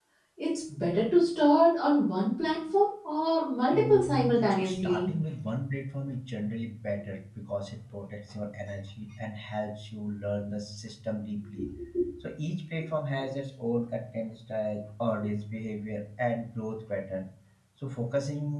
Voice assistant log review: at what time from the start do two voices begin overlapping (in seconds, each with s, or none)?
3.7 s